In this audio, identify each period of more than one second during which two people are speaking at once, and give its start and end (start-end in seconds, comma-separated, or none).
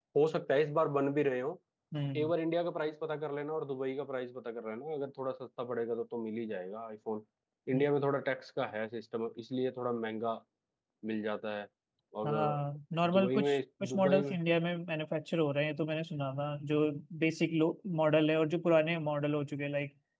13.1-14.4